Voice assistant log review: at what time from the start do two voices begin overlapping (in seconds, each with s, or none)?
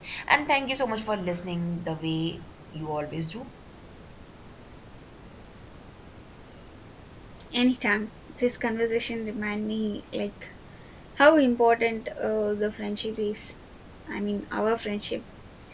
none